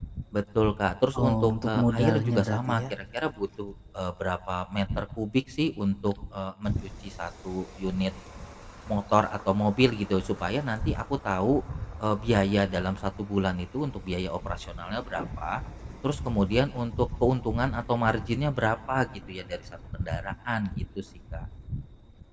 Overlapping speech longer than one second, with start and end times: 1.2-2.8

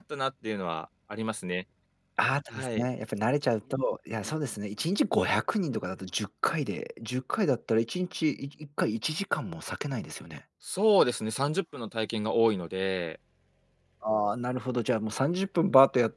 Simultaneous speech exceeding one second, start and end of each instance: none

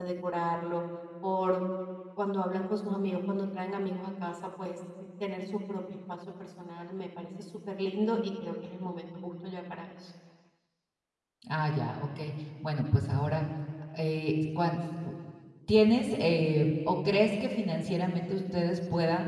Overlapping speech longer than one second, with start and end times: none

